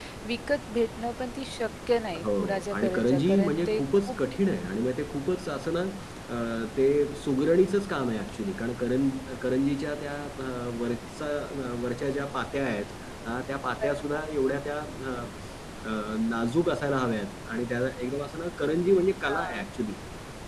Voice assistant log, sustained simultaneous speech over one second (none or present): present